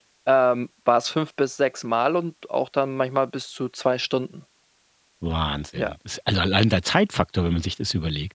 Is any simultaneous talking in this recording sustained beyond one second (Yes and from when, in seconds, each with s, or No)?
No